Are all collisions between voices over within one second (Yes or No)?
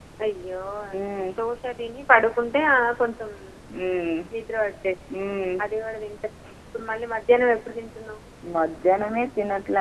Yes